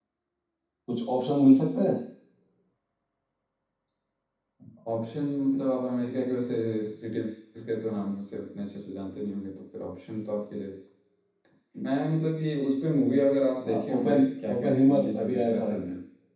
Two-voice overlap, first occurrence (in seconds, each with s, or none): 13.6 s